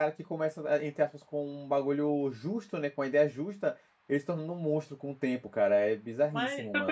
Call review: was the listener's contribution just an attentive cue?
No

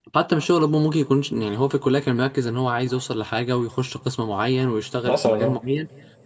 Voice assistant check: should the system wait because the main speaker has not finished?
Yes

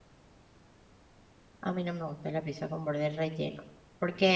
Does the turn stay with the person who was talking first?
Yes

